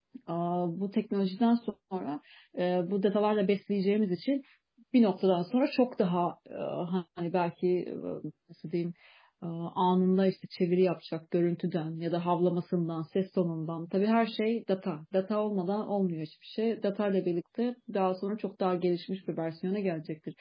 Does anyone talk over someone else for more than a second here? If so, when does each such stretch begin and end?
none

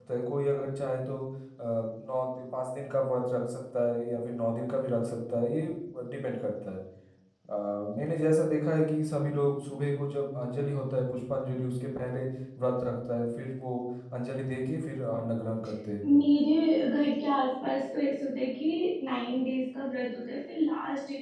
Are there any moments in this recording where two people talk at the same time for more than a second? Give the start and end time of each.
none

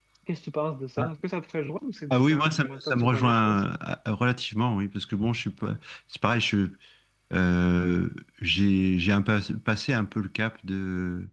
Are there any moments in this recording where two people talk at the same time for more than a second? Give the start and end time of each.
2.1-3.6

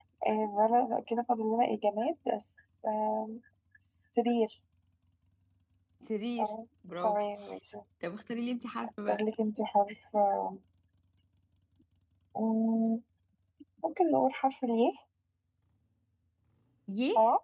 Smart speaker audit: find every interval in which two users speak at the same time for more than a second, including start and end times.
none

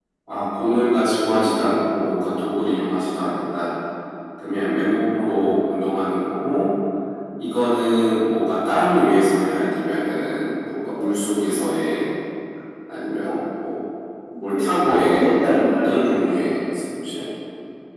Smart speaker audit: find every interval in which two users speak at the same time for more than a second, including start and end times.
14.5-16.5

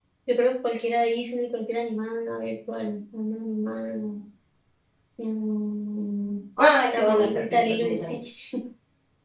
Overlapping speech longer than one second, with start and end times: 6.8-8.2

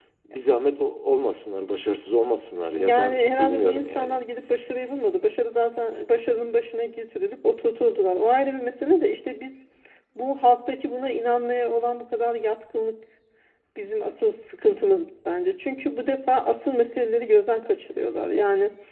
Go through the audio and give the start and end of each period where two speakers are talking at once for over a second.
2.7-4.2

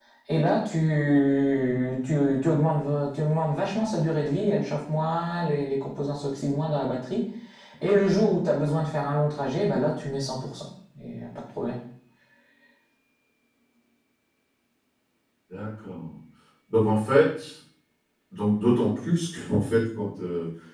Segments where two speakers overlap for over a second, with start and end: none

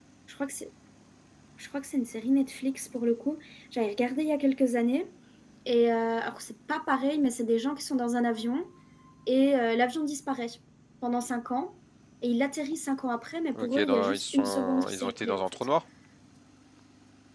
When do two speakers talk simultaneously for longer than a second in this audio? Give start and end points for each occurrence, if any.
13.6-15.4

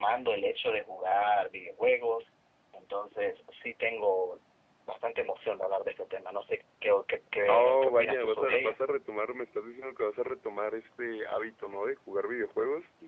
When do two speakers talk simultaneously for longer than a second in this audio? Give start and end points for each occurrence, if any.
7.5-8.8

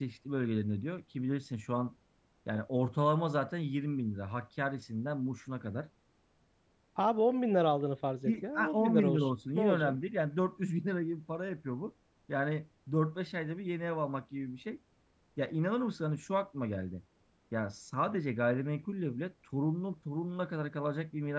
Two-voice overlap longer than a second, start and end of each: 8.3-9.9

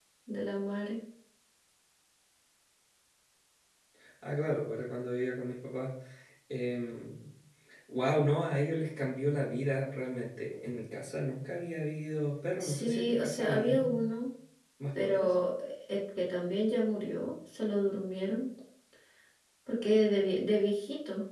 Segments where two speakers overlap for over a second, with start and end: 12.6-14.1

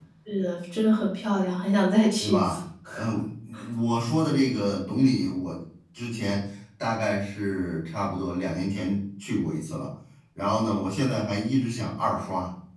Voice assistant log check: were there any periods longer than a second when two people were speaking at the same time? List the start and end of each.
none

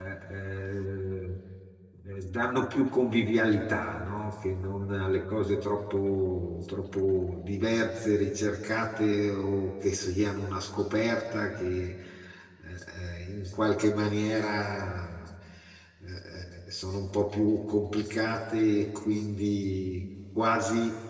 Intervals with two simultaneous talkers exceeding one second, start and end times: none

